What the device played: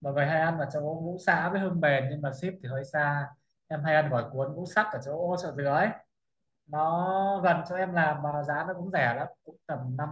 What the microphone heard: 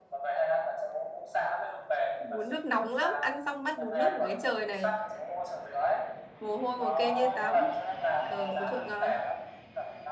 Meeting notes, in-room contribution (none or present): present